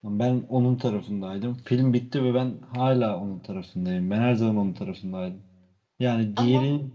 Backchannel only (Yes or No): Yes